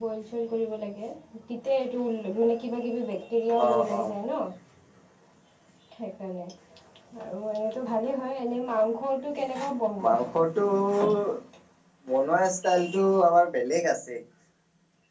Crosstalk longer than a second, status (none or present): none